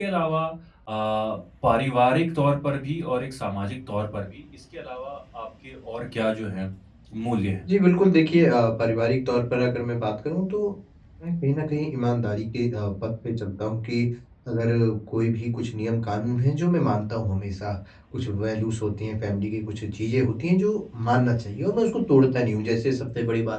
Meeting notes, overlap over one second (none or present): none